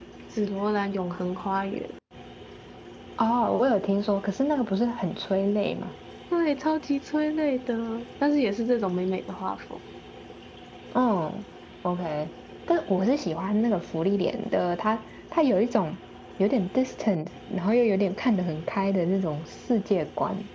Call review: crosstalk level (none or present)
none